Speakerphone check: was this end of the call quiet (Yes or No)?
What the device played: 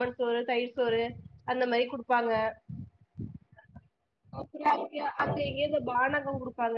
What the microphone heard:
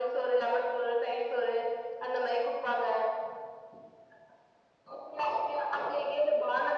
Yes